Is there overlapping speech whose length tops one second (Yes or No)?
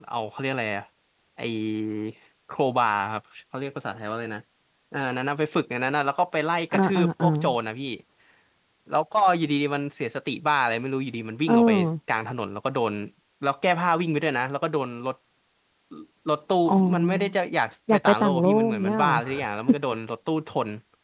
Yes